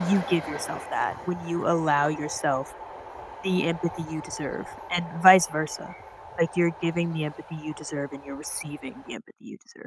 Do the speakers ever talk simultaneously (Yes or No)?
No